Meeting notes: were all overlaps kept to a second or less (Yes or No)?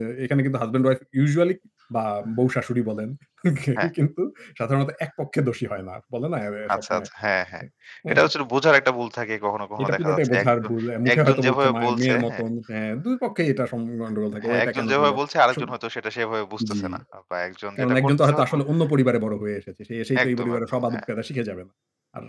No